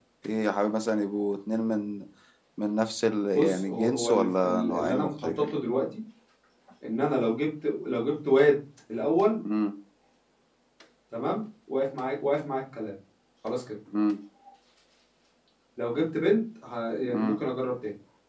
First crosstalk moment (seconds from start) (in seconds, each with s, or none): 3.4 s